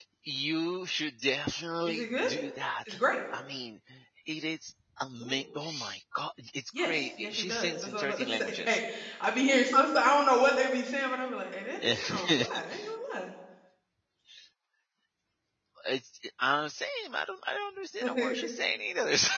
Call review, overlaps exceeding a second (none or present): present